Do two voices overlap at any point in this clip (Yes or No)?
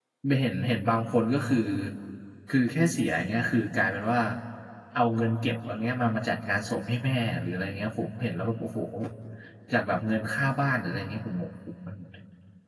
No